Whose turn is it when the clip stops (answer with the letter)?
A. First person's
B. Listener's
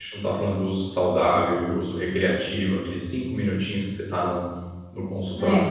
A